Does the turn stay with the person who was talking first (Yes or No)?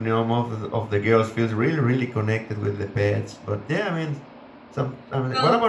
Yes